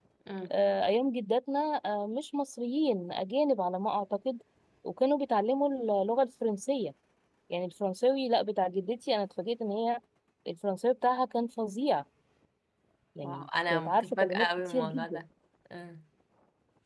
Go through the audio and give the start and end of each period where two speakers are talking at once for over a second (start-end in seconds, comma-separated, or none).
13.2-15.2